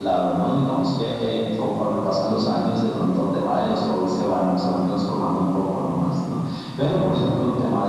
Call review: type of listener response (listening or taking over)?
listening